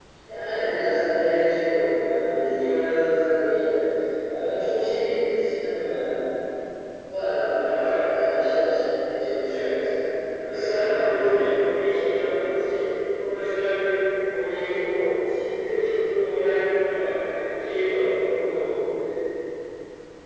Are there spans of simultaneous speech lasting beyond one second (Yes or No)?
Yes